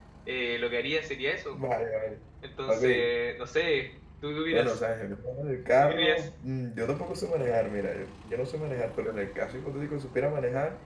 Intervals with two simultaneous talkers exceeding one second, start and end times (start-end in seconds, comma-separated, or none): none